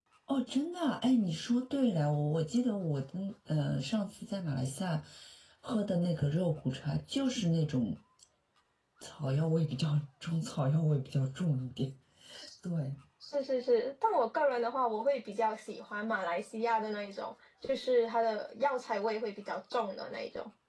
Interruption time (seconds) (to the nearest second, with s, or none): none